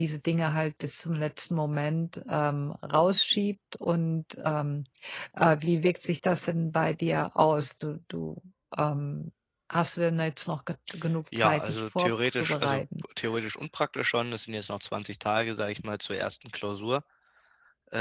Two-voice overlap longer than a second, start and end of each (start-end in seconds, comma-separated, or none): 11.4-12.8